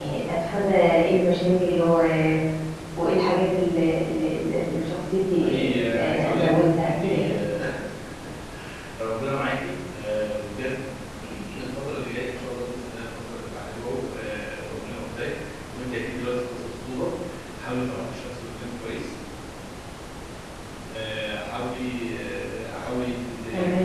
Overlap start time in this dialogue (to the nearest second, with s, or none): 5 s